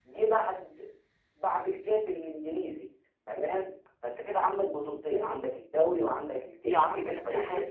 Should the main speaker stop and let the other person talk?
Yes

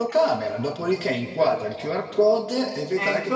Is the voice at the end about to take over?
No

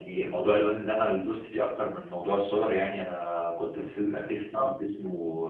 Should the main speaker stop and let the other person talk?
No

